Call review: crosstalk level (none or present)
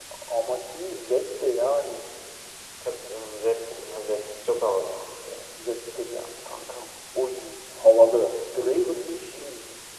none